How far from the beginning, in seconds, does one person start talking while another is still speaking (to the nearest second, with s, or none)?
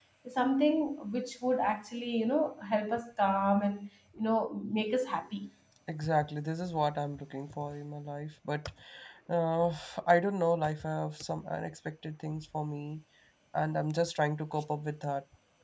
none